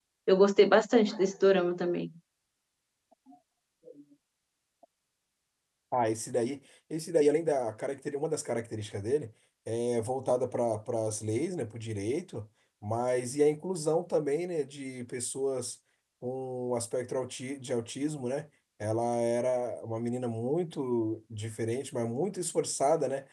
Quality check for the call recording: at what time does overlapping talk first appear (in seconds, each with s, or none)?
none